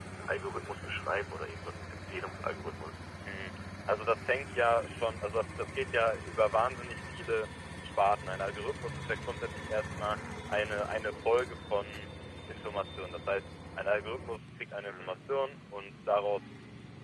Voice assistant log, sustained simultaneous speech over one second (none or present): none